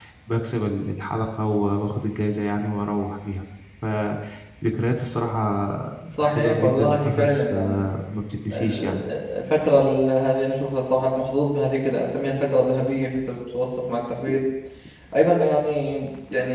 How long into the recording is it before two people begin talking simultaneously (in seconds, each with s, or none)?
6.2 s